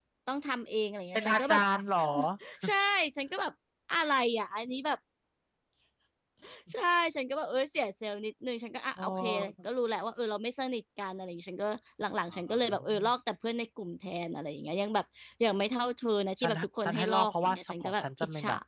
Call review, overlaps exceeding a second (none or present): present